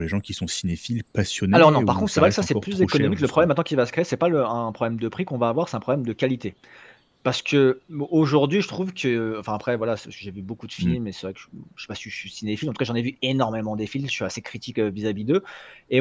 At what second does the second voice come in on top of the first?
1.5 s

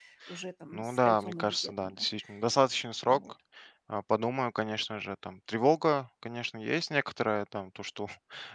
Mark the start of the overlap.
0.7 s

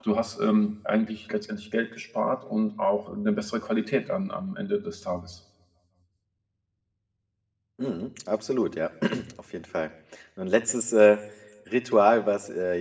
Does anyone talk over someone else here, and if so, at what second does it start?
none

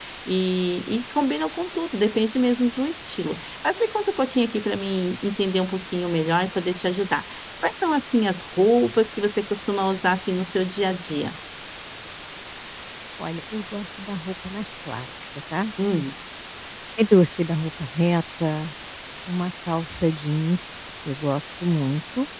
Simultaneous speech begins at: none

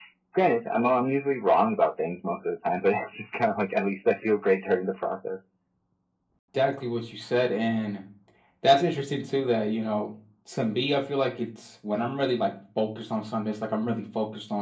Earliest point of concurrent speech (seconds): none

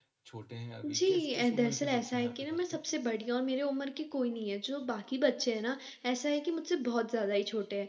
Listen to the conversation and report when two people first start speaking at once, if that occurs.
1.0 s

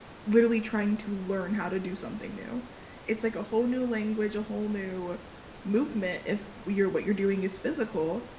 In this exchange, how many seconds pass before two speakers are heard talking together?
none

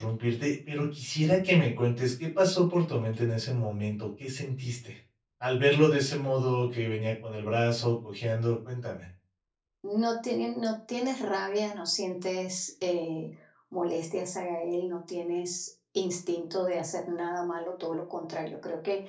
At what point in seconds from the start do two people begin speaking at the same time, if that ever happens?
none

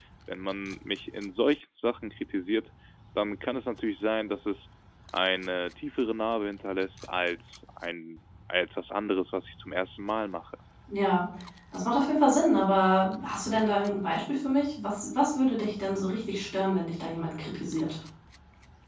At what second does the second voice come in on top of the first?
none

